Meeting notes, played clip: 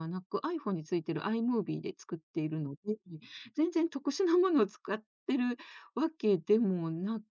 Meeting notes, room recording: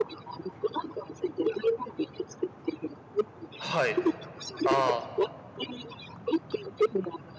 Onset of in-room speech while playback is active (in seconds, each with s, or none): 3.6 s